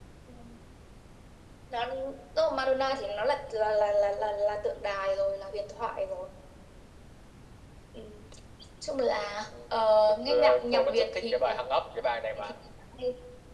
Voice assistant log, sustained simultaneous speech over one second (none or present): present